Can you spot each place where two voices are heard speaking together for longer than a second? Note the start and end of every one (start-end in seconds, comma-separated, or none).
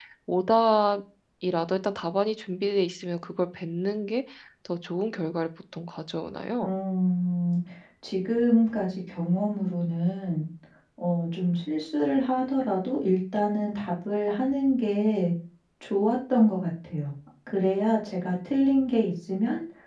none